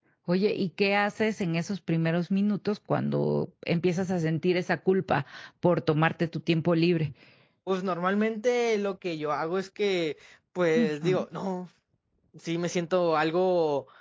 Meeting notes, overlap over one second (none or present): none